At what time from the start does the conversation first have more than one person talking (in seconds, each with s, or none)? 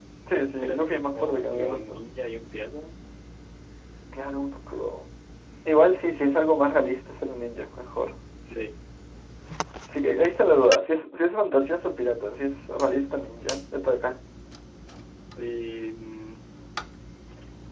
0.6 s